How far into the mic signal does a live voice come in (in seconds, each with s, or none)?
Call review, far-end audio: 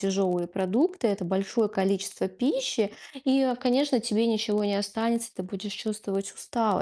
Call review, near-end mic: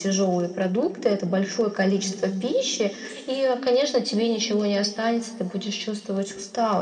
2.0 s